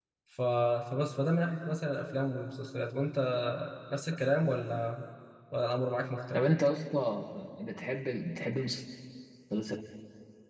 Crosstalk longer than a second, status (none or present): none